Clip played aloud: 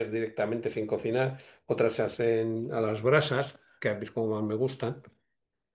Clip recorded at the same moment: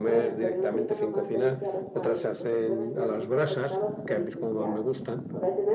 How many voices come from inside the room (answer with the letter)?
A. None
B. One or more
B